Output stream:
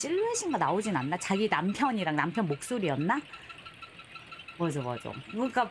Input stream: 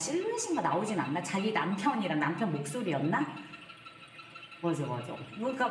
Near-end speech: none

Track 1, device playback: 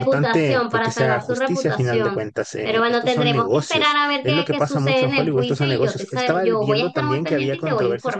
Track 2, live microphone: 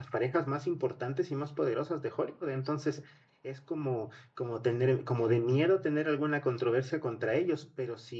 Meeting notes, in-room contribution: present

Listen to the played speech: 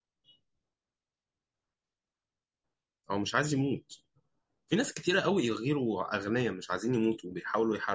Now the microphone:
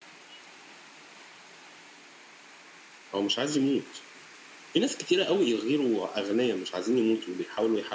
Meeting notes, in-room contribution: none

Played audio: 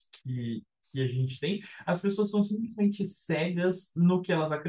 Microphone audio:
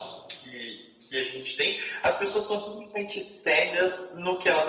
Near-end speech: none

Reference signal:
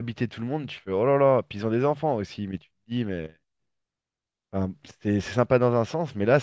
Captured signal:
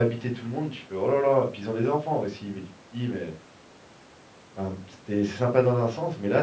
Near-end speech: none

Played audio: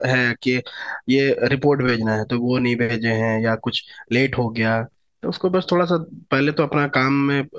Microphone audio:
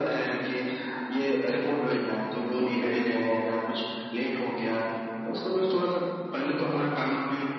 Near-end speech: none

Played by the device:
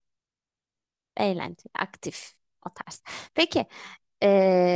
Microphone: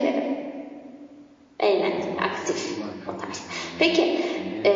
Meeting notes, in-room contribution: present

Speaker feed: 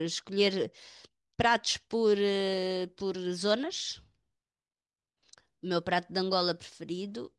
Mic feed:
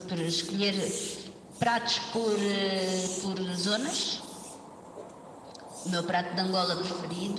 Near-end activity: none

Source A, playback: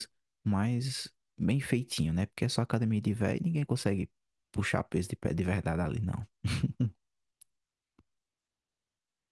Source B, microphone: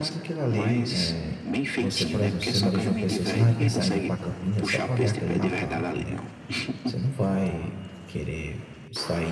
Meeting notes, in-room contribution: present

